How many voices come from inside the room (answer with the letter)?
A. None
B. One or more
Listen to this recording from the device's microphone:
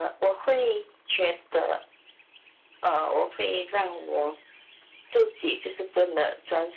A